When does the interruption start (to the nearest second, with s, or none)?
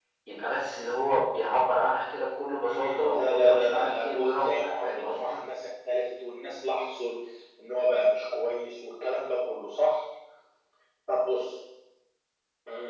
3 s